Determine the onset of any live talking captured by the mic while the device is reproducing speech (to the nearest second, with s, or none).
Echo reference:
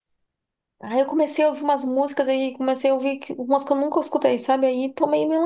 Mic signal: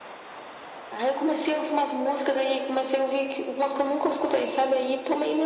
none